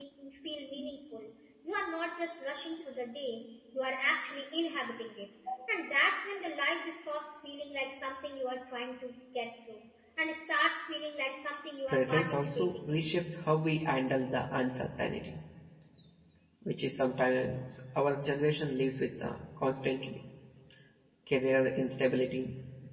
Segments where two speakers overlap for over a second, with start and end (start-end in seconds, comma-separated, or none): 11.9-13.1